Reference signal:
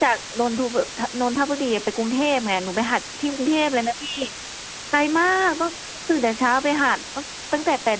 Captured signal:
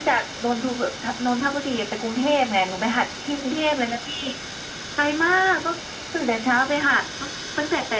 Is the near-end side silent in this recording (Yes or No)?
Yes